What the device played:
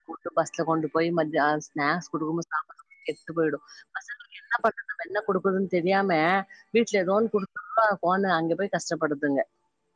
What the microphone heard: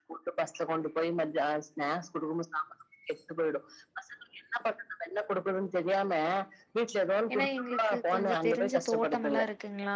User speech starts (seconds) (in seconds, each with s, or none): 7.3 s